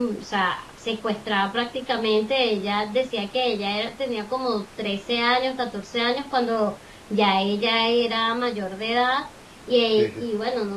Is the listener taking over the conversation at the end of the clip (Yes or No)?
No